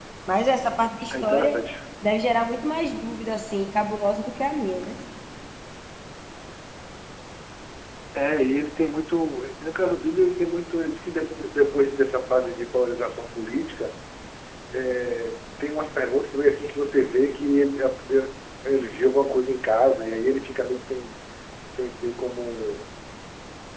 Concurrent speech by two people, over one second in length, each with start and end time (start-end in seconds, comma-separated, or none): none